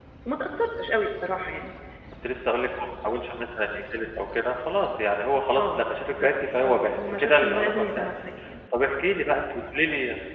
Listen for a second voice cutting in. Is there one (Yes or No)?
Yes